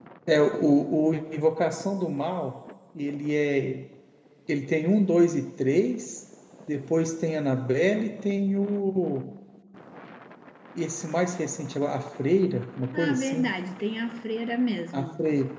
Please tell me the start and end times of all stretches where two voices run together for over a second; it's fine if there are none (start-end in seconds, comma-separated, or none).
none